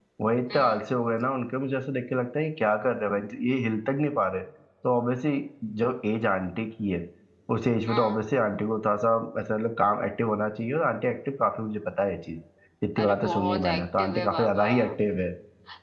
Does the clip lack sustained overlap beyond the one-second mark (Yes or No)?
No